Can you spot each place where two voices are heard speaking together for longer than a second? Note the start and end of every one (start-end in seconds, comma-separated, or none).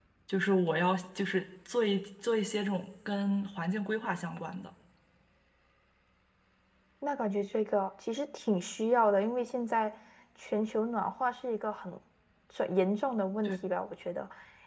none